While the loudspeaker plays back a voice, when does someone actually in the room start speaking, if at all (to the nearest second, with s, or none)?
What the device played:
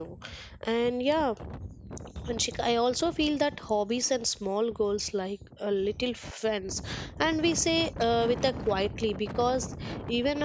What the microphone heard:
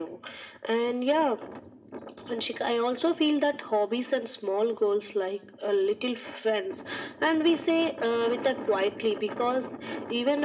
none